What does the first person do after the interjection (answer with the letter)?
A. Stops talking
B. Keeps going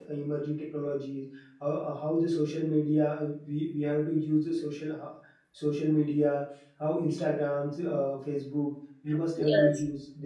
B